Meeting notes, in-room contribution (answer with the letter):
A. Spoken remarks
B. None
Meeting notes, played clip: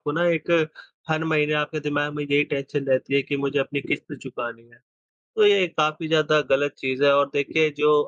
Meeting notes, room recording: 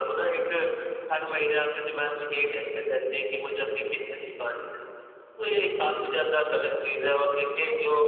B